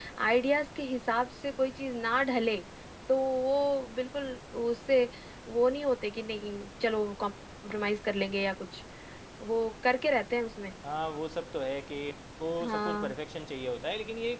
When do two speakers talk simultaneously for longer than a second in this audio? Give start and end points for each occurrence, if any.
none

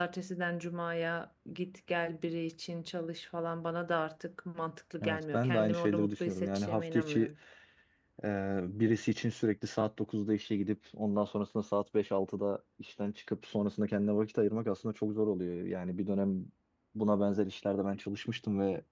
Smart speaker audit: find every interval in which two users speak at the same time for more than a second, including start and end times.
5.0-7.3

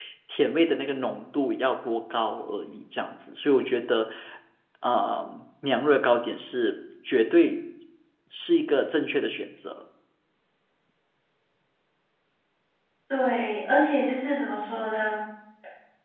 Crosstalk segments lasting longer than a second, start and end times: none

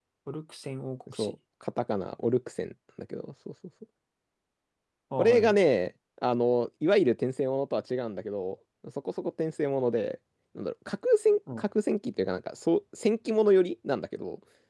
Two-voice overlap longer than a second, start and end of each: none

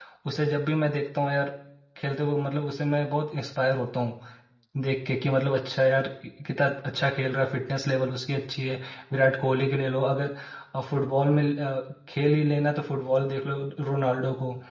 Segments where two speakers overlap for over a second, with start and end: none

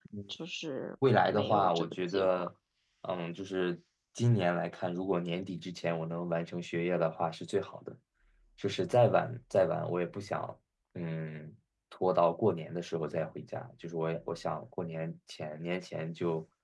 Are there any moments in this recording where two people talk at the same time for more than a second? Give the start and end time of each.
1.3-2.5

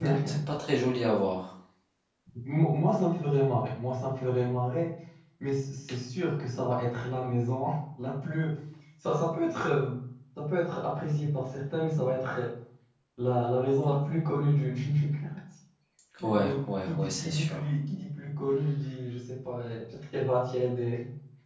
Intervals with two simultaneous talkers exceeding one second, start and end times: 16.4-17.6

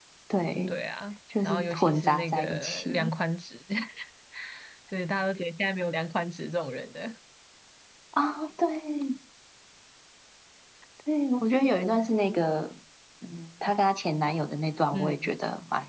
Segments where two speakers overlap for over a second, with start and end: 1.4-3.1

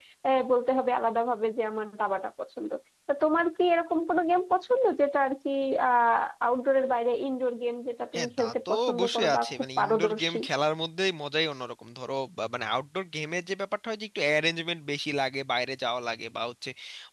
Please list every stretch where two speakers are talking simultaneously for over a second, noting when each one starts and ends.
8.1-10.4

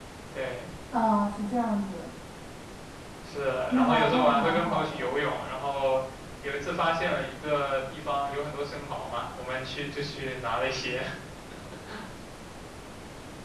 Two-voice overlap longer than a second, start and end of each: 3.7-5.1

